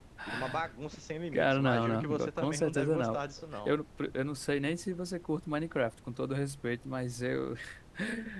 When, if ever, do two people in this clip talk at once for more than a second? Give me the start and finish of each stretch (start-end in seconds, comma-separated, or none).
1.3-3.2